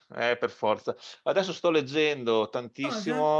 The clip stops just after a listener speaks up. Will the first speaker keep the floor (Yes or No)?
Yes